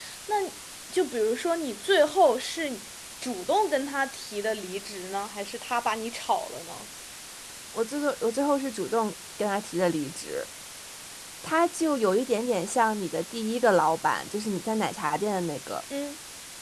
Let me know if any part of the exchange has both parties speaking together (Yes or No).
No